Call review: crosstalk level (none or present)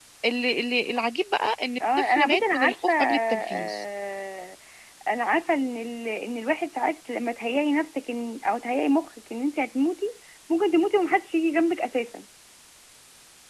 present